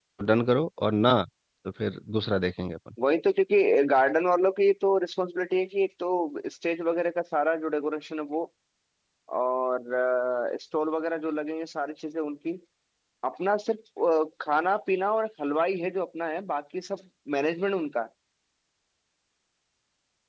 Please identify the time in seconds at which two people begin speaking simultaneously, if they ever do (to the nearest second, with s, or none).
none